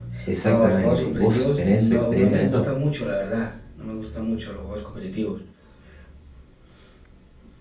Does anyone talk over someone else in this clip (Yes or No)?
Yes